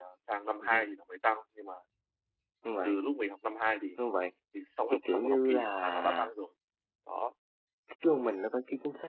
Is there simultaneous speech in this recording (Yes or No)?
Yes